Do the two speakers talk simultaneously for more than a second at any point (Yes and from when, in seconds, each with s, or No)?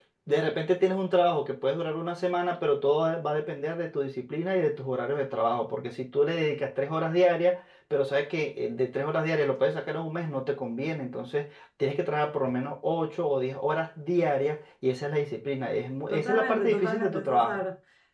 Yes, from 16.1 s